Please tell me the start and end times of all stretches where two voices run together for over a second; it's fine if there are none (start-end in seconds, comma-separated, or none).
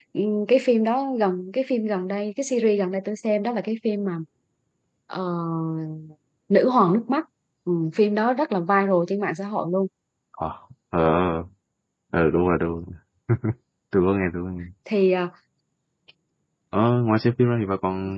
none